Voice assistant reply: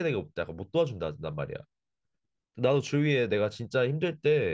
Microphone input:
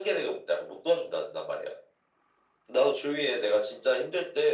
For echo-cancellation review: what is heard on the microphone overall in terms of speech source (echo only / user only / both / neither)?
echo only